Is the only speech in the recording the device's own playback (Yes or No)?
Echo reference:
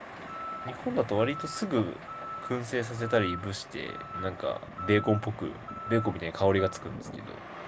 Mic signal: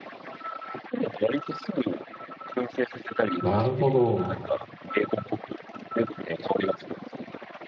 No